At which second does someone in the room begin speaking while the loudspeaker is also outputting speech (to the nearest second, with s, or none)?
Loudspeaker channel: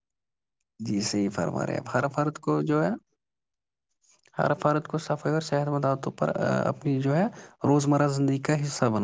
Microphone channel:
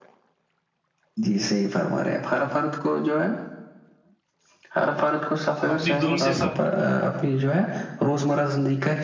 6 s